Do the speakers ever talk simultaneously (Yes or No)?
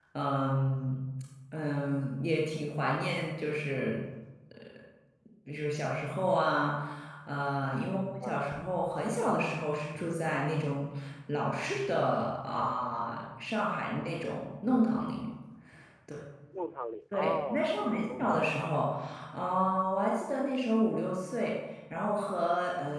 Yes